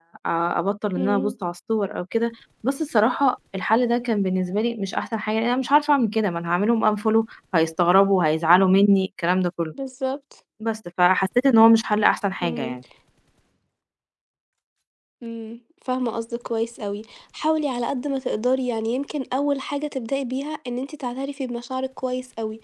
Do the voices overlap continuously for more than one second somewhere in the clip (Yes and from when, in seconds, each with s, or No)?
No